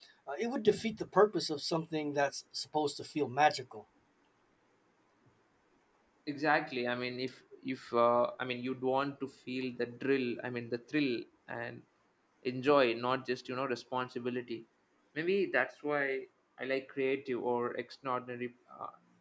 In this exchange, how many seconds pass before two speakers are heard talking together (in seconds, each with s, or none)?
none